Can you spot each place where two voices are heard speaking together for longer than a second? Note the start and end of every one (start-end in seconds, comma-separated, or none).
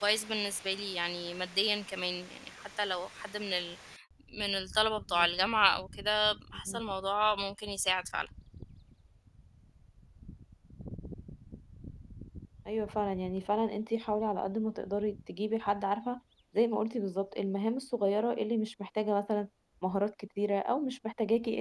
none